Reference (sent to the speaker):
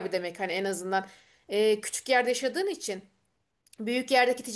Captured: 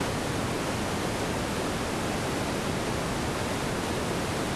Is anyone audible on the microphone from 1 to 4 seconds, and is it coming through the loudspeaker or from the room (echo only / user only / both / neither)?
neither